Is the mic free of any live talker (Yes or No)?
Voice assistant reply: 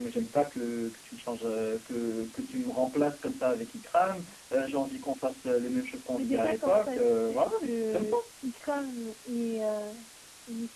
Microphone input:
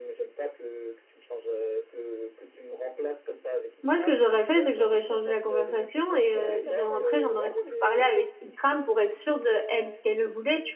No